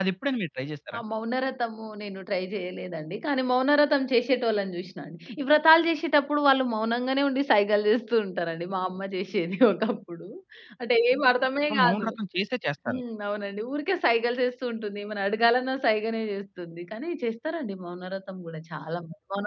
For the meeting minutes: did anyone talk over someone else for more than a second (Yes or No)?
No